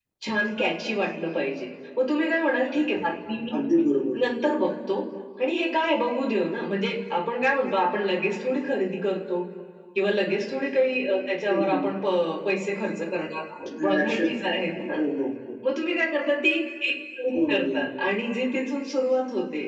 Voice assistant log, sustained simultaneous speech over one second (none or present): none